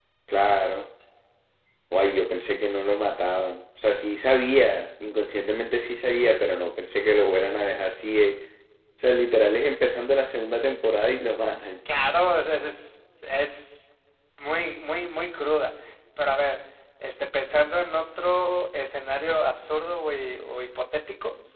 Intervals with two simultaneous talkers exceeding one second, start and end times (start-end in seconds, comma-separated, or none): none